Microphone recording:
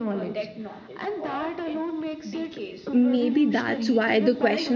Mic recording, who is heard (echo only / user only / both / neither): both